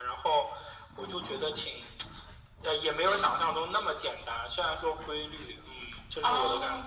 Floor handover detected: Yes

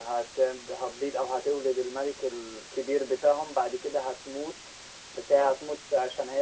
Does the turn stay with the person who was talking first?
Yes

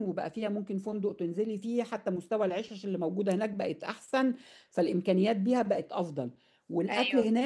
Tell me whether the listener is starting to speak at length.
No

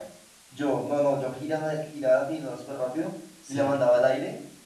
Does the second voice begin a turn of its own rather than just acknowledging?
No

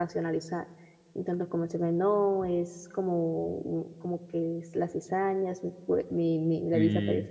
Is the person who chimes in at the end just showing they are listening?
Yes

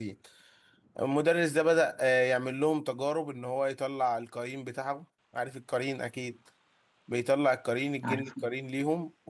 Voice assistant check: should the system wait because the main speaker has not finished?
Yes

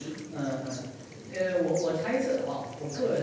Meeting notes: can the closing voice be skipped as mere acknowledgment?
Yes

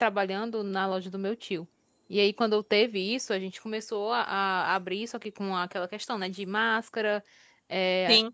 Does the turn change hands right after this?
No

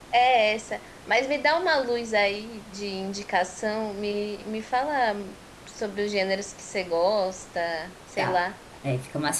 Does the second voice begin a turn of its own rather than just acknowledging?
Yes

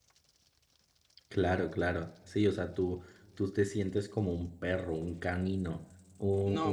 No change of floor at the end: No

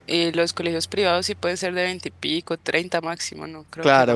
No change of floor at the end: No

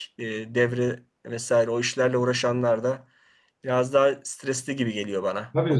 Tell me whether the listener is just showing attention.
No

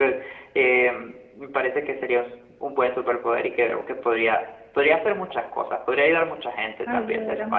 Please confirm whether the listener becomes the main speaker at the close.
Yes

